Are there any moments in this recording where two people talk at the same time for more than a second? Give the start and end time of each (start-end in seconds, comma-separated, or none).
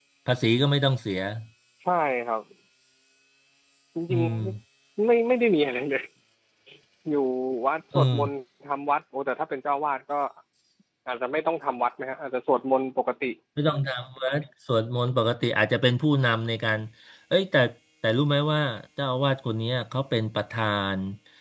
none